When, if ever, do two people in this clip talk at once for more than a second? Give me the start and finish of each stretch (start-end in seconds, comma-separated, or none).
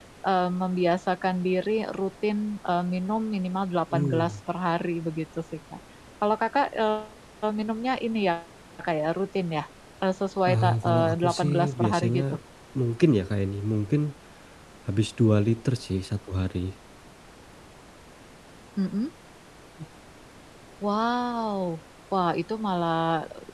10.4-12.2